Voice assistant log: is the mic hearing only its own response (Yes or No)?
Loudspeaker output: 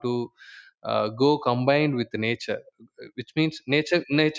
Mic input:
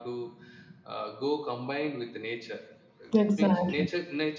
No